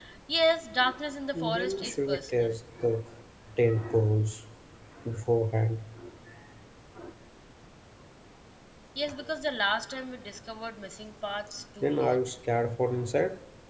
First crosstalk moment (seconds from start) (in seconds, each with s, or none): 1.3 s